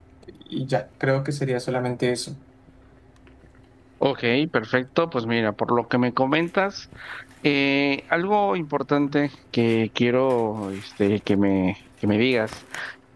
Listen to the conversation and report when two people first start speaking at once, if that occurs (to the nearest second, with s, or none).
none